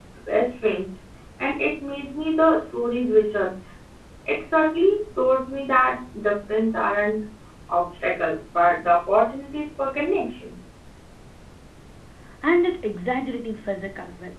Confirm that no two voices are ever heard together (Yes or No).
Yes